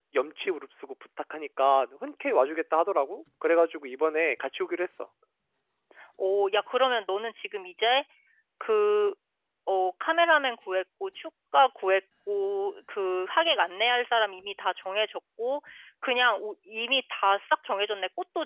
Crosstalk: none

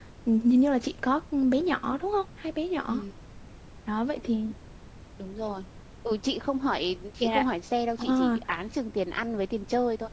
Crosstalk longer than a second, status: none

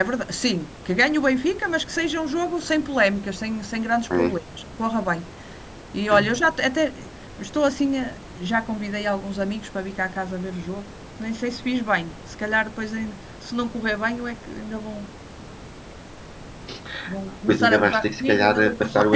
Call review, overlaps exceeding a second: present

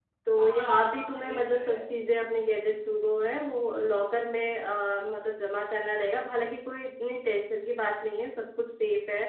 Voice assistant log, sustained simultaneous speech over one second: present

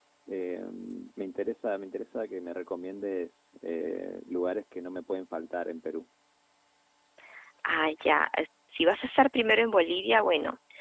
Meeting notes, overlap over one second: none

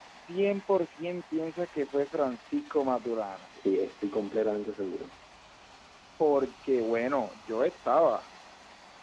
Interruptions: none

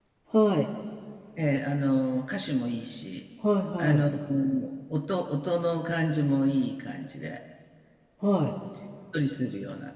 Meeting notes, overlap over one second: none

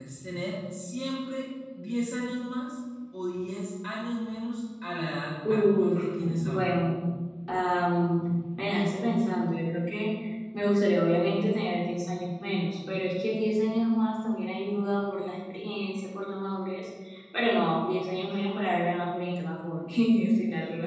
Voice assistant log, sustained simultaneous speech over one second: present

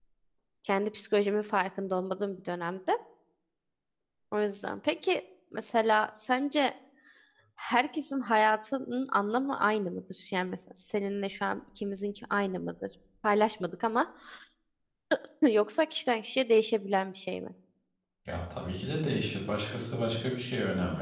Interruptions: none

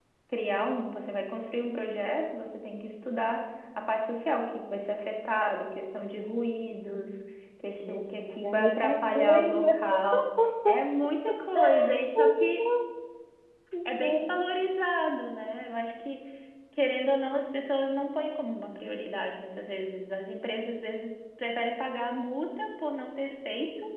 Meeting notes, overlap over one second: present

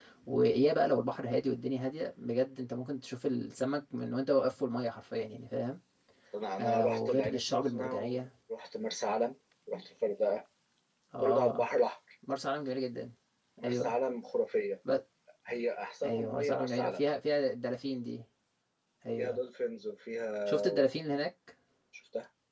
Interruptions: present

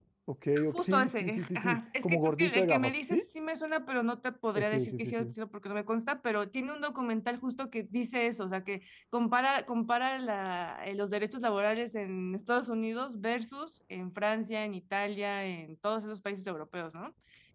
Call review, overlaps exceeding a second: present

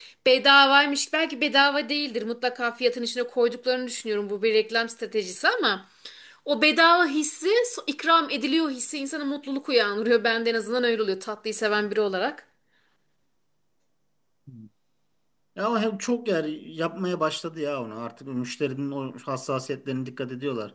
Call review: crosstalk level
none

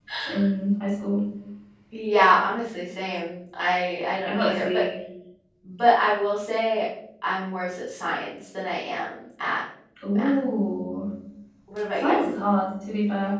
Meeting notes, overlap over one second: none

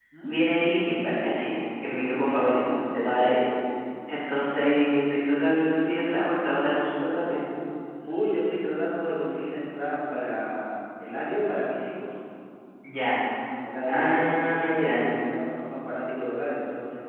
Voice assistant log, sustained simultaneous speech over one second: present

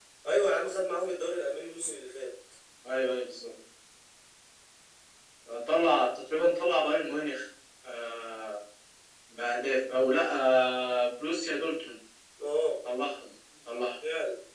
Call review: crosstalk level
none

